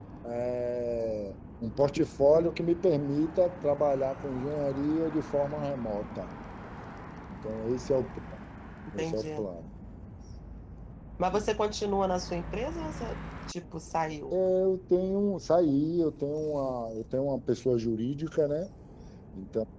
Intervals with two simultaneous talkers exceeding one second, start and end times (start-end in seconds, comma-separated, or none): none